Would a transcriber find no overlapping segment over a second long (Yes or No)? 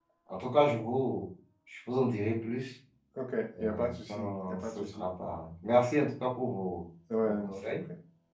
No